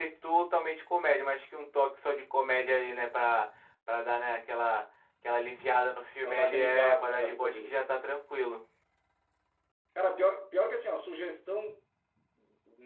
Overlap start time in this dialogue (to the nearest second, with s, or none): 6 s